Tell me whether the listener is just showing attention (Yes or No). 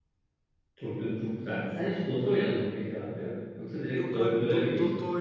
No